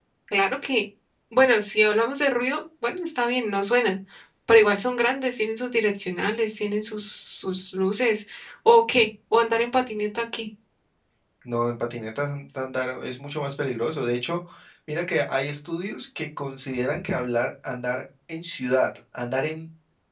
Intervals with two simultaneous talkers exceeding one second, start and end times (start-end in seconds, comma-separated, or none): none